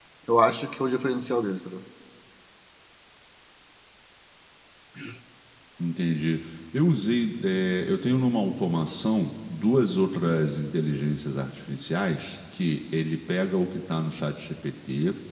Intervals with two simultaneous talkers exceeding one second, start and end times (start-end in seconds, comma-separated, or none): none